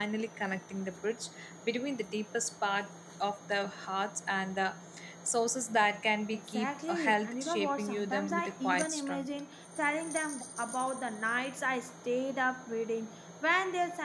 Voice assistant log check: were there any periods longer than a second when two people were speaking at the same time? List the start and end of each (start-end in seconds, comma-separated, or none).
6.3-9.3